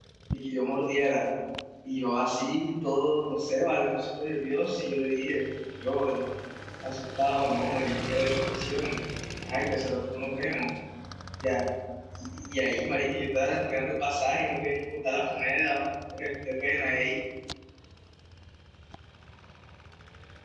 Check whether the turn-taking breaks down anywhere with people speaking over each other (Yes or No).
No